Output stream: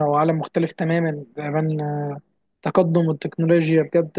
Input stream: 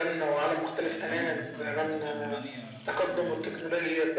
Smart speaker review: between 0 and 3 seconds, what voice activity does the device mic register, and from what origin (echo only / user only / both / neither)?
both